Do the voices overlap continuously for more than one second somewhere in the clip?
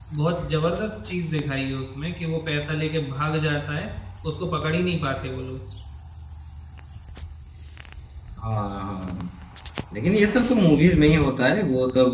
No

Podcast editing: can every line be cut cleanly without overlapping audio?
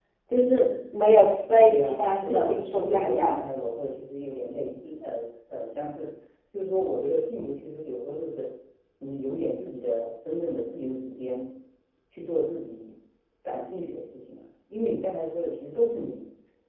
No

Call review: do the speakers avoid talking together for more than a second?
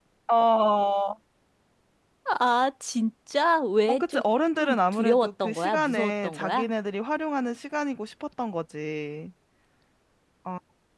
No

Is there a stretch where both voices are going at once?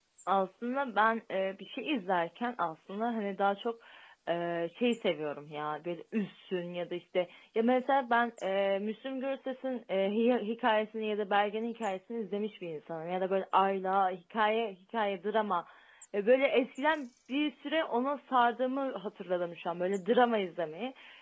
No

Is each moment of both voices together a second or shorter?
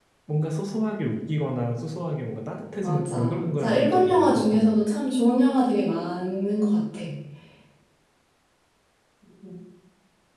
No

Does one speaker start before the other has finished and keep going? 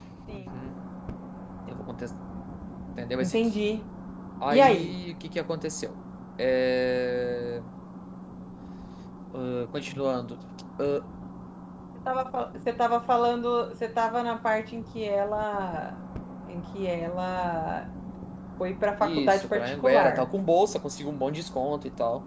Yes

